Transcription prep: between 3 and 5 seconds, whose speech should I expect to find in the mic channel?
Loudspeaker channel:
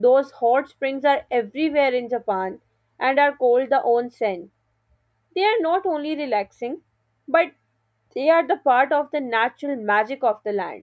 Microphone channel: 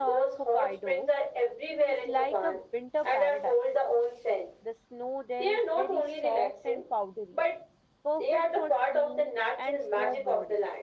both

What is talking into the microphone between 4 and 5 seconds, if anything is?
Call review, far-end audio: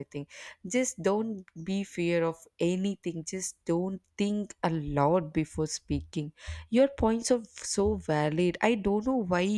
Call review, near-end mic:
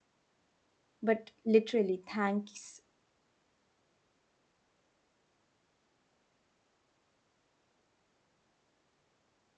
neither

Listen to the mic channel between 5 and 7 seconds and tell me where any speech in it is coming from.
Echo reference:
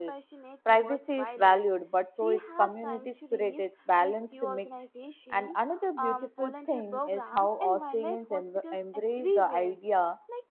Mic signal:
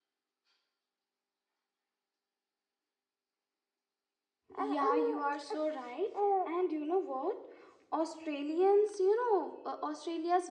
user only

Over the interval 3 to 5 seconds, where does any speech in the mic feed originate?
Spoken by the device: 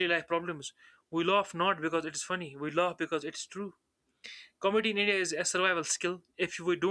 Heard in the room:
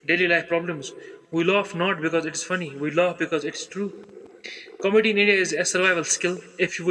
echo only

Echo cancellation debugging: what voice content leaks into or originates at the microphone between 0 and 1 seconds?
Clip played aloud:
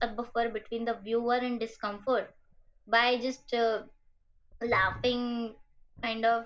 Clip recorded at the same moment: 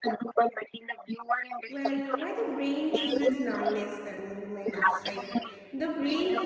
echo only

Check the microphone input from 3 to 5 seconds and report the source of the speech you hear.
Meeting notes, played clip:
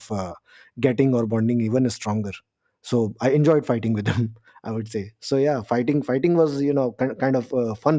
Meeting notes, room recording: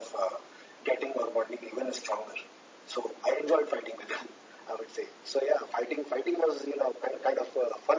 echo only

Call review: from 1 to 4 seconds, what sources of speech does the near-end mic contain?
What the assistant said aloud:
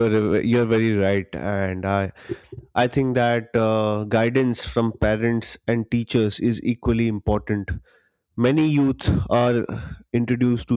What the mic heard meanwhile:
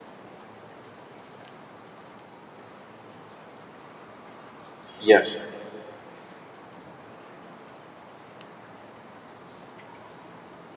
neither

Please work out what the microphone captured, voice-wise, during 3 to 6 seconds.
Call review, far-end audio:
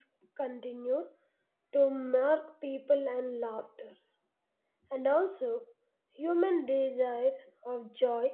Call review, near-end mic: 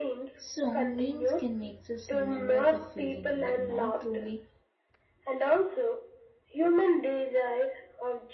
both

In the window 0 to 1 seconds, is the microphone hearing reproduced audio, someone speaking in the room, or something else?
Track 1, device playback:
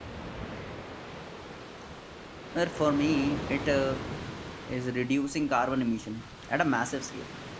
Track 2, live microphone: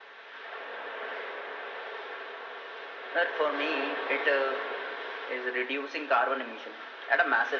neither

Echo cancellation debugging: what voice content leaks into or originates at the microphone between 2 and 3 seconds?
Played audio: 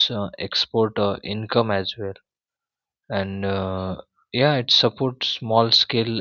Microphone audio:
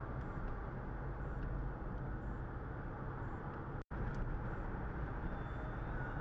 neither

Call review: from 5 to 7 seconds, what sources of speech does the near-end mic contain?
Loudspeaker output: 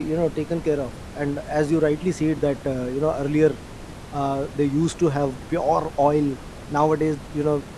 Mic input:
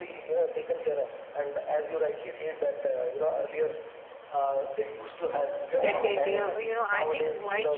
both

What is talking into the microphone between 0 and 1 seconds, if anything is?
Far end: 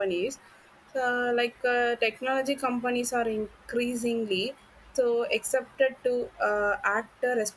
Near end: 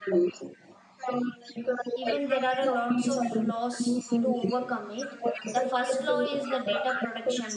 echo only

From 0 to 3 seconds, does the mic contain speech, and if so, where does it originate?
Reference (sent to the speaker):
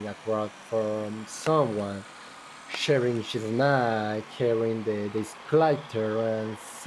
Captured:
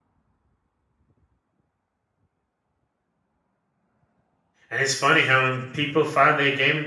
neither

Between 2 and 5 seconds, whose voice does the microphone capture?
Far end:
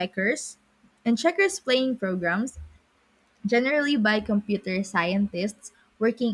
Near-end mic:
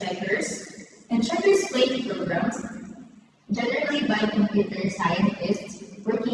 echo only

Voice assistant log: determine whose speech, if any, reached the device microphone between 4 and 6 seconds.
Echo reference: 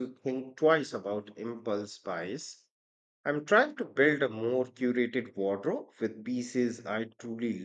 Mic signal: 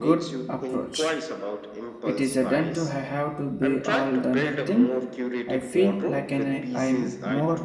both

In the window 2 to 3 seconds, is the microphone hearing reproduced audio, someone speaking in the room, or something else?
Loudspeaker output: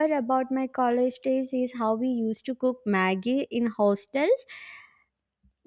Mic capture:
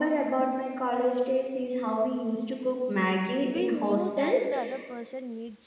echo only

